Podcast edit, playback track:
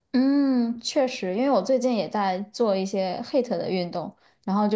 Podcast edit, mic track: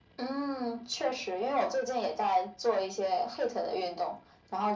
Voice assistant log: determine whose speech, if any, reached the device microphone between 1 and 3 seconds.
echo only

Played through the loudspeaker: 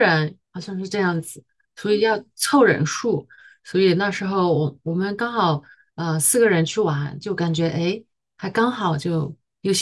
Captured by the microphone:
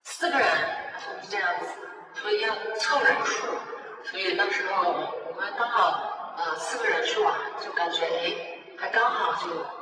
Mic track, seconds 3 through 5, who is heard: echo only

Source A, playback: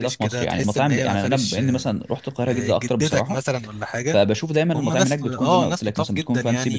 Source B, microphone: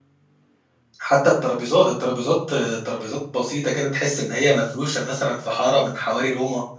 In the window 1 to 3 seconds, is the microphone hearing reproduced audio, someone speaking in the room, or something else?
user only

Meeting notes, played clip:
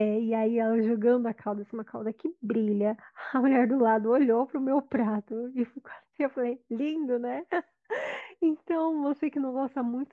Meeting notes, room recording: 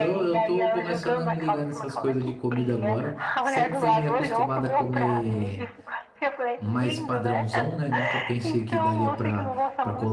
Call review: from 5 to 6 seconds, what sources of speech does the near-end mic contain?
both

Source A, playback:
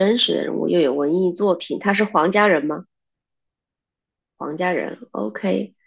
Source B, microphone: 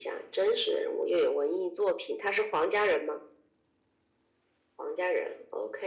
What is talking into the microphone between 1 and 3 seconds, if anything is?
echo only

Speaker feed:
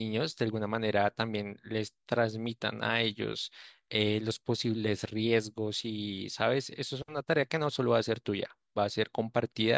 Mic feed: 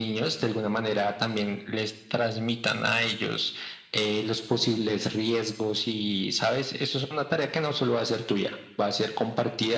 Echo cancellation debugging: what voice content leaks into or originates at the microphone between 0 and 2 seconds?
echo only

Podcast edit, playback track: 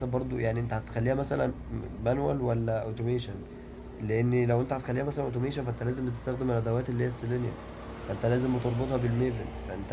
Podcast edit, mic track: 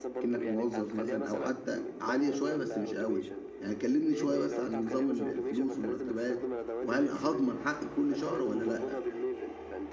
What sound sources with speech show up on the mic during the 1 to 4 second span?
both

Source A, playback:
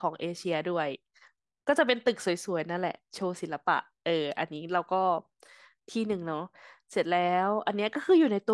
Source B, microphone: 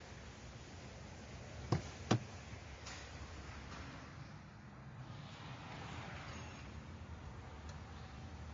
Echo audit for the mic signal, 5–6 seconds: neither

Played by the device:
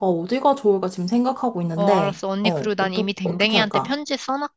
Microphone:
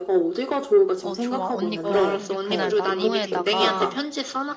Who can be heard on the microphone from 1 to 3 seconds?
both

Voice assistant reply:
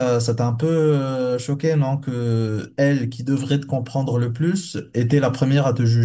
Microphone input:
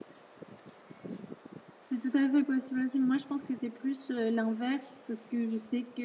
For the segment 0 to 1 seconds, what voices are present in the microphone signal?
neither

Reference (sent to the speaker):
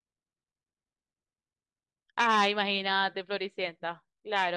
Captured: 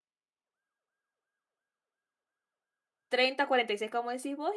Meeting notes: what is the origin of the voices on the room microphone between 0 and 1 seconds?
neither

